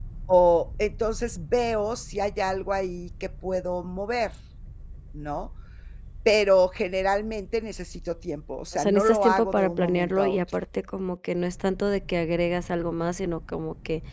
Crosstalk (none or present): present